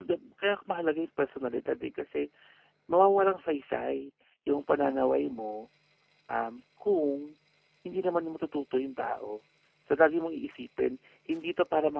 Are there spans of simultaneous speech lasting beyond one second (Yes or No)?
No